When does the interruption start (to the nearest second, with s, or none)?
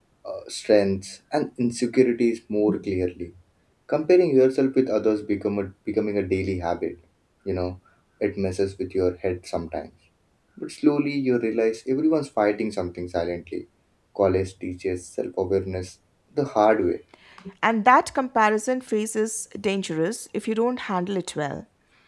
none